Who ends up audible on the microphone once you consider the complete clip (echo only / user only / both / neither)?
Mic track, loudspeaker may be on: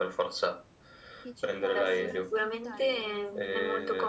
both